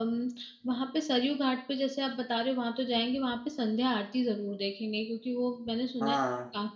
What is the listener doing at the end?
listening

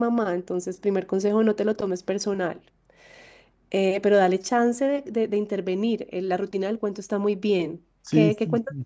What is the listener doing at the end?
taking over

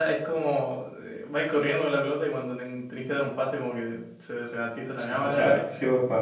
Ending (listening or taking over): taking over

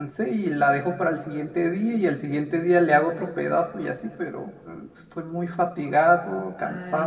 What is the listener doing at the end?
taking over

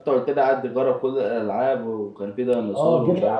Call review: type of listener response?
taking over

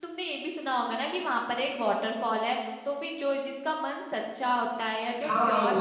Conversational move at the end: taking over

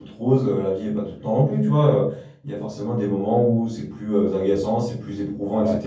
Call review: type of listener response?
listening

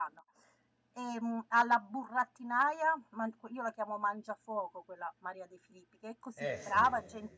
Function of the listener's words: listening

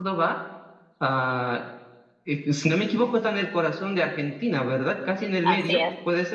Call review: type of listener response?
taking over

